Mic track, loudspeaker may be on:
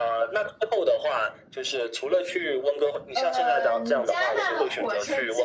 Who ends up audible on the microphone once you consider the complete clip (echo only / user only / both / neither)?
both